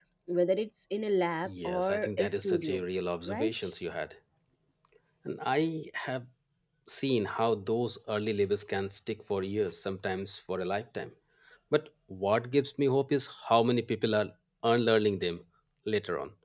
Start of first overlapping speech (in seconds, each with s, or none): 1.4 s